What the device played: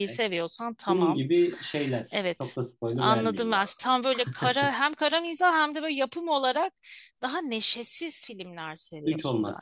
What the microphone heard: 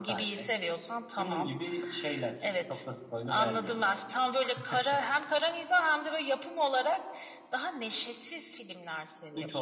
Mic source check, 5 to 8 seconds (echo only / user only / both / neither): echo only